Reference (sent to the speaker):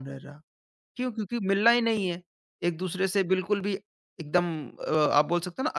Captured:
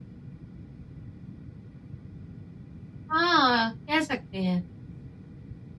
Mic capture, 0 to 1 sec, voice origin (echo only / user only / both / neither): neither